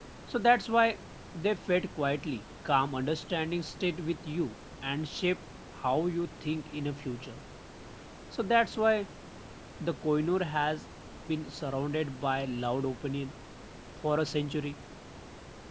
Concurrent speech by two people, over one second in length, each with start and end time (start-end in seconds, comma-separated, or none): none